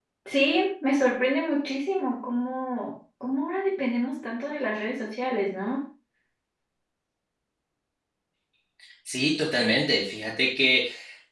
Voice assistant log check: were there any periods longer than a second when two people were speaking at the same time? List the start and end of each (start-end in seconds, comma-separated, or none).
none